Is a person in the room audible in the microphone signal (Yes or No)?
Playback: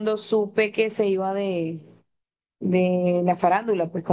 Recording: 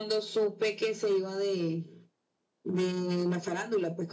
No